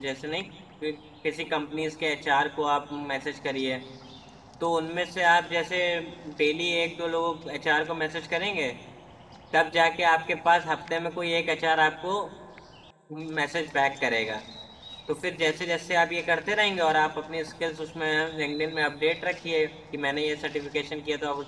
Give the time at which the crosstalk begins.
none

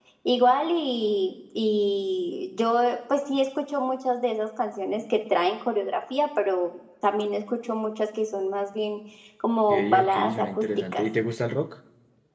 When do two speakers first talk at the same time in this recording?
9.7 s

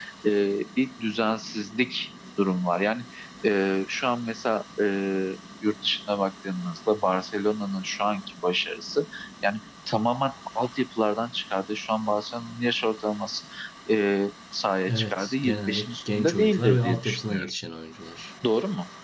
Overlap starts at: 14.9 s

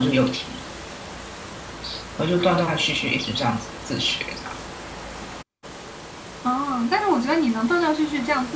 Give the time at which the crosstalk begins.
none

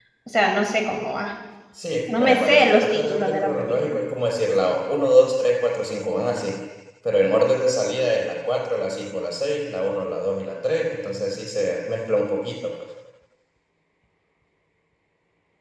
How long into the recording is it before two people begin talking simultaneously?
2.1 s

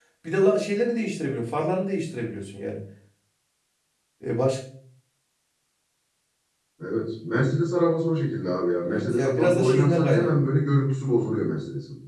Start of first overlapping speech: 8.8 s

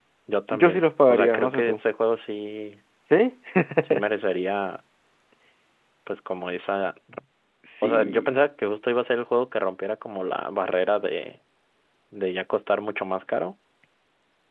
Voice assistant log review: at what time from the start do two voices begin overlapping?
0.5 s

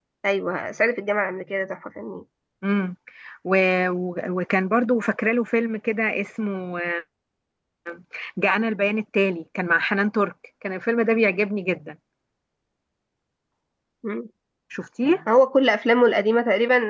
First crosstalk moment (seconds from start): none

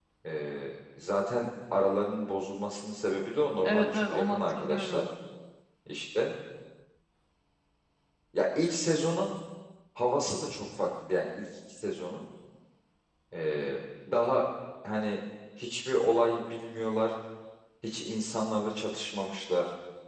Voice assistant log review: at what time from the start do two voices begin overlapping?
3.6 s

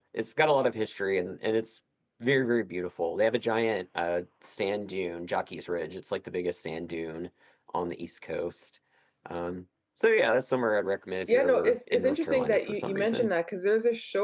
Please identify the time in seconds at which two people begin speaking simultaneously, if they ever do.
11.3 s

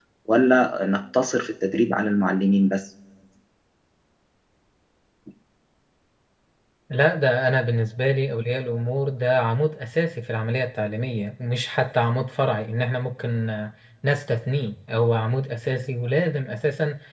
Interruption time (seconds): none

